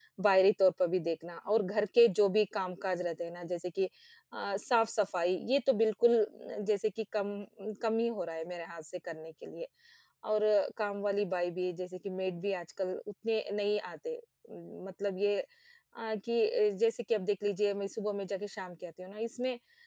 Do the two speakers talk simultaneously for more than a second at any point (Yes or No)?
No